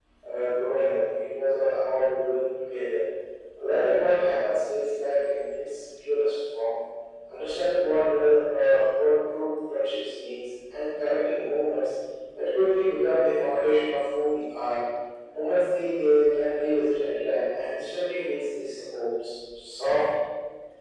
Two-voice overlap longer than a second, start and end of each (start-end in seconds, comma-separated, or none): none